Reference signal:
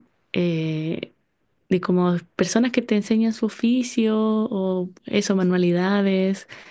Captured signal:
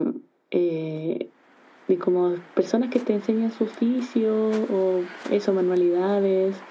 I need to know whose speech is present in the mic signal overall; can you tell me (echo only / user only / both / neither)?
echo only